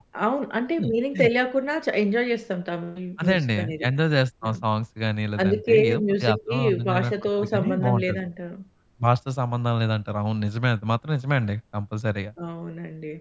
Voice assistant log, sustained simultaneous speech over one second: present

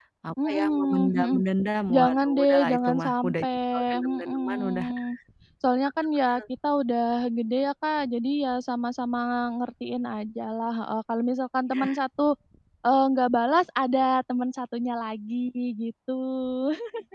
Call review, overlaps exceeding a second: present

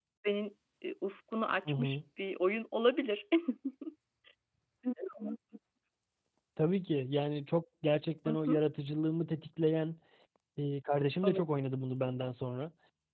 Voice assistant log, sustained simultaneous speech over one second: none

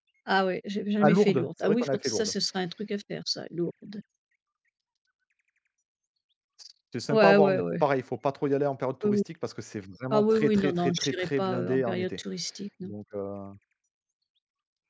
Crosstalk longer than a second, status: present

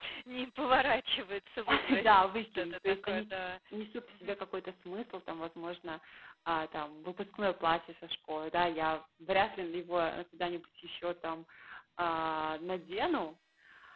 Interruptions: present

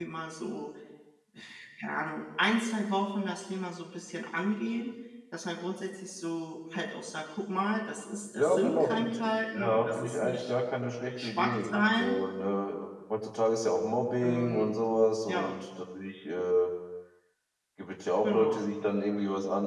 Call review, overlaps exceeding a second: present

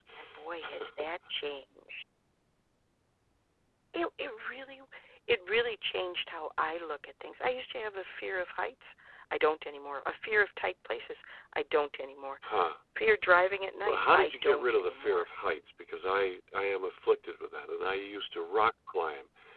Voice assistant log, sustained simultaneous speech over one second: present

